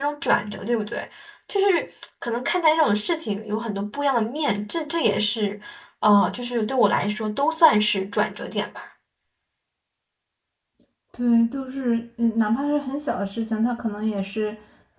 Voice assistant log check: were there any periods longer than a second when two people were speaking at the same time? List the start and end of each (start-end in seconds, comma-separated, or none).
none